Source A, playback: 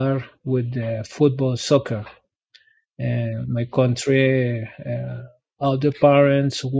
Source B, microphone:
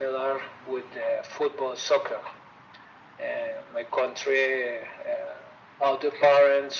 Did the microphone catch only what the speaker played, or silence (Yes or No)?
Yes